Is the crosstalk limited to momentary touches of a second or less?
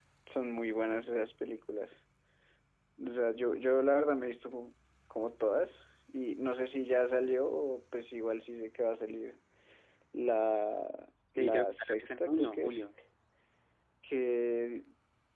No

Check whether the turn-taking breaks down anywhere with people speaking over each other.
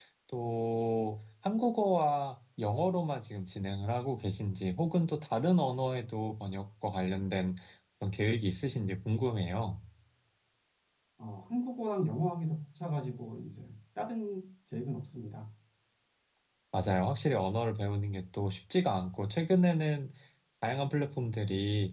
No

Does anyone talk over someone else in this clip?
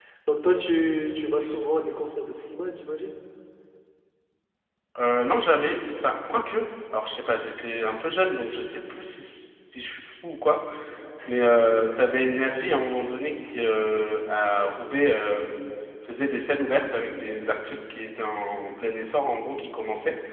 No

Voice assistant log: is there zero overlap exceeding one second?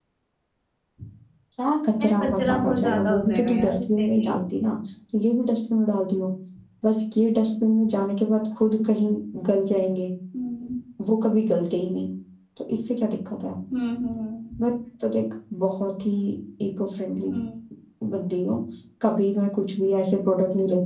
No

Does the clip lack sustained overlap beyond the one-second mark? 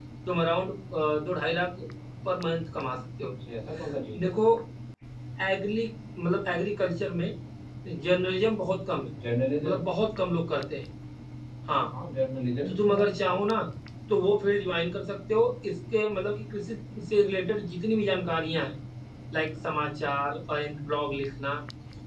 Yes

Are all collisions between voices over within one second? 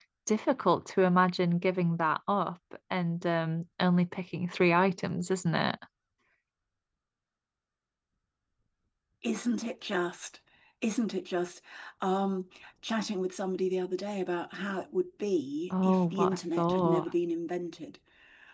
No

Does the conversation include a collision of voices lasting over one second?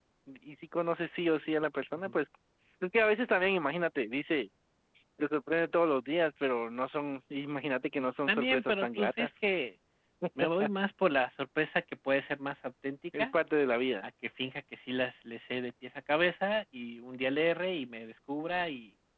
Yes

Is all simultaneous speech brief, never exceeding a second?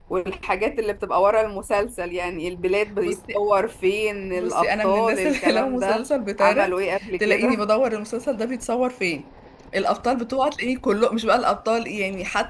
No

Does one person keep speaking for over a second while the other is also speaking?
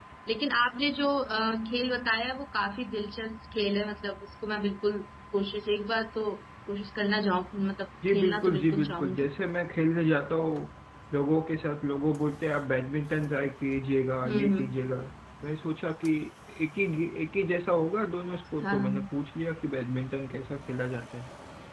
Yes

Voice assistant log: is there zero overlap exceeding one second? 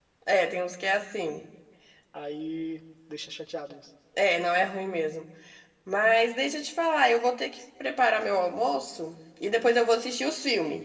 Yes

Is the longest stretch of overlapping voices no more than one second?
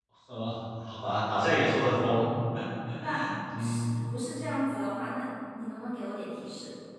Yes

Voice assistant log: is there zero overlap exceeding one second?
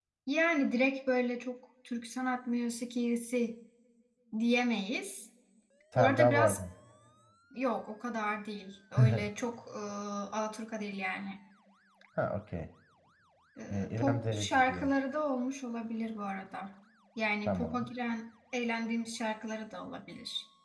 No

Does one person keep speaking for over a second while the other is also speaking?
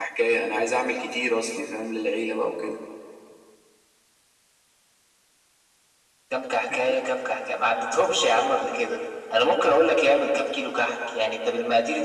No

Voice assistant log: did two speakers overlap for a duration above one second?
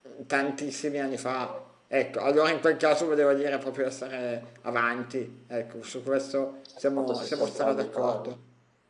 Yes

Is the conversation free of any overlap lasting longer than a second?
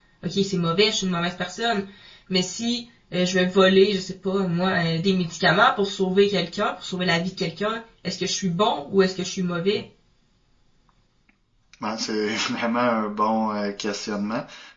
Yes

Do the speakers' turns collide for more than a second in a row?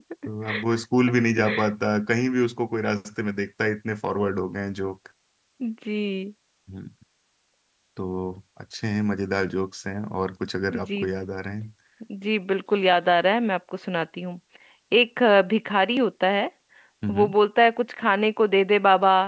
No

